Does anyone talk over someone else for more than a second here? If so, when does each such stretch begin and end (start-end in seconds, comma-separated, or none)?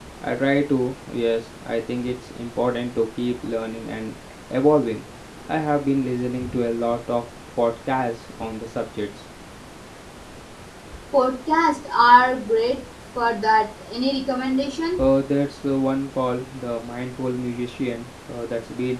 none